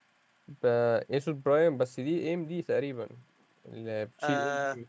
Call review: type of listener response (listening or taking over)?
taking over